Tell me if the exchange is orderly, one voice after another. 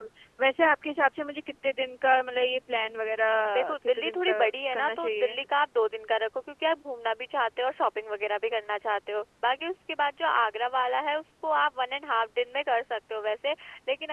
No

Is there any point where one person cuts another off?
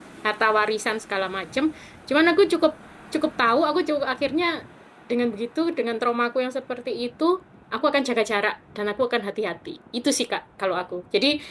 No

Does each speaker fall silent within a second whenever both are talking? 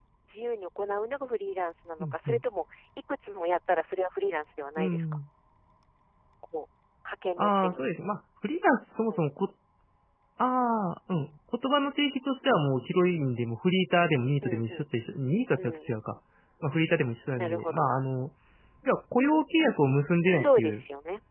Yes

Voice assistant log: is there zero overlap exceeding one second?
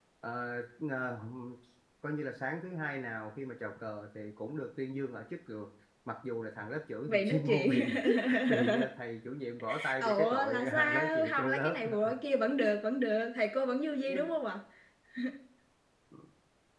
No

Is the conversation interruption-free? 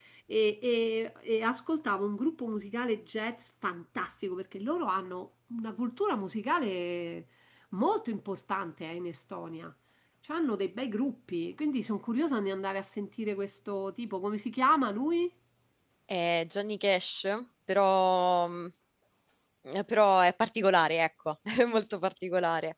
Yes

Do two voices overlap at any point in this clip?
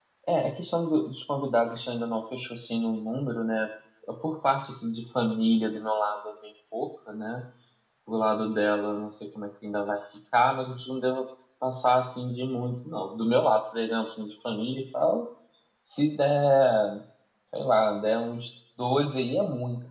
No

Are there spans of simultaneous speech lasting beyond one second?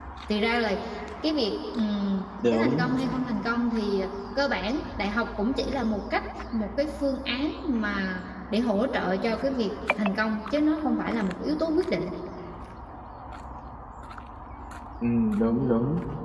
No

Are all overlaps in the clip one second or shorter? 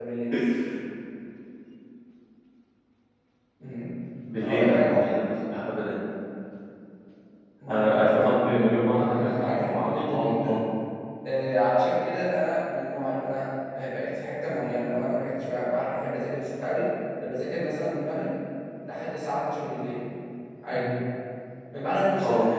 No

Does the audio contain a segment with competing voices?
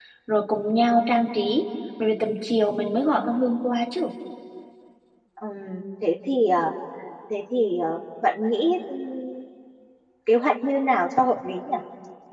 No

